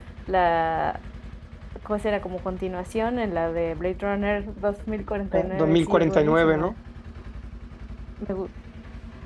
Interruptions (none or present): present